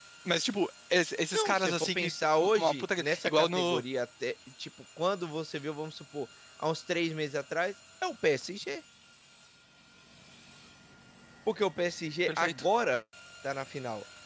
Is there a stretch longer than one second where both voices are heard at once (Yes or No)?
Yes